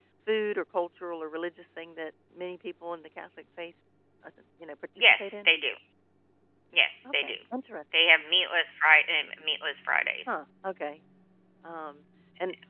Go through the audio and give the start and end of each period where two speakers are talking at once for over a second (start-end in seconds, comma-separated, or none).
none